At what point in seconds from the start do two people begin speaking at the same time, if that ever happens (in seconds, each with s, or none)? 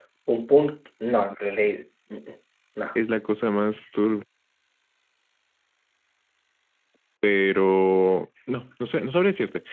none